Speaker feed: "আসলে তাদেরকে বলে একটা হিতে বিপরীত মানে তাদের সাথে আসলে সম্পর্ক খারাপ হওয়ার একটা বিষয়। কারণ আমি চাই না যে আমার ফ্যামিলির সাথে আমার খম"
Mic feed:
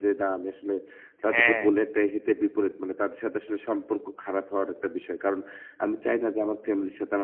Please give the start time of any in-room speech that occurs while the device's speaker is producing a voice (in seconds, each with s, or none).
1.3 s